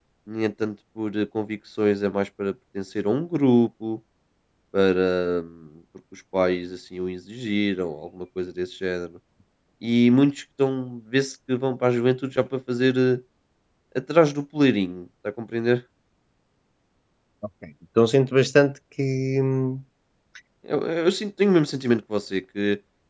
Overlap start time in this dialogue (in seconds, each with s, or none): none